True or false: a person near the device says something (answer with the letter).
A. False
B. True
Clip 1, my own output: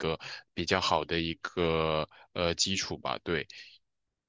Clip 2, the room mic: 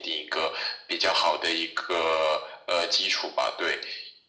A